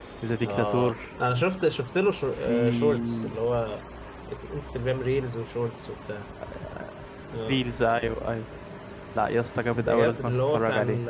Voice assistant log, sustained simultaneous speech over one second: present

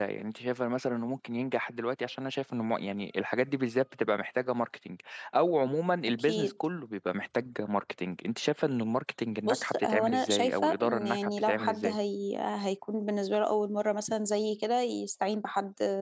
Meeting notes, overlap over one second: present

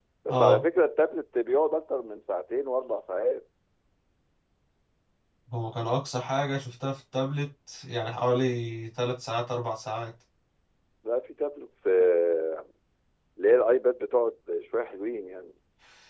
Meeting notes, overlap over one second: none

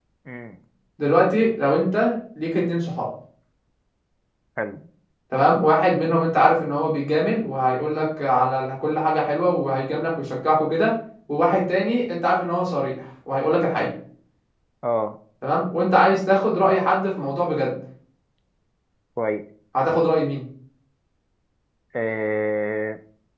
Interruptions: none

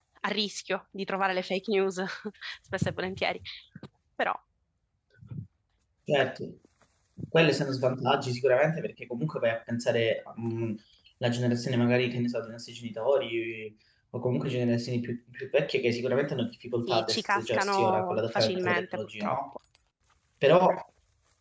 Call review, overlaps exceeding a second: present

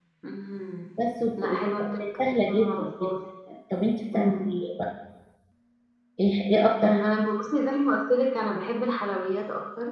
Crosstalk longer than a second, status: present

